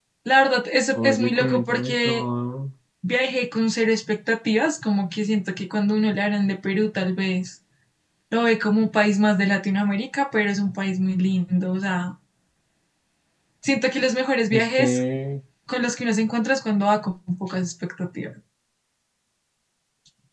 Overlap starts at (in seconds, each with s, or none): 0.9 s